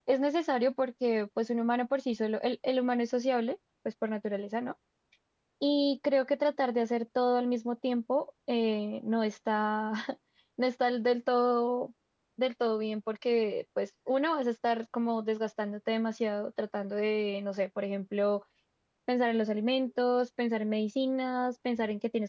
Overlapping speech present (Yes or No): No